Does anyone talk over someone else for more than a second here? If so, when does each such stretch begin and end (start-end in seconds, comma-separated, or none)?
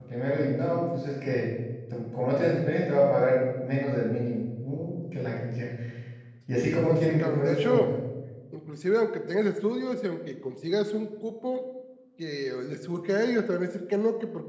6.6-7.9